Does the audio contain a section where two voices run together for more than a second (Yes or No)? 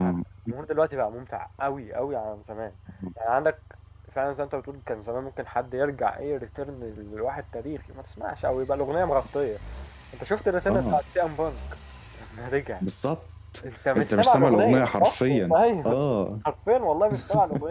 Yes